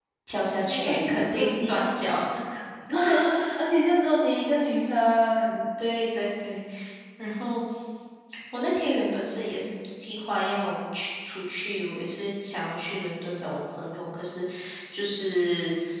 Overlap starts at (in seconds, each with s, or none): 0.6 s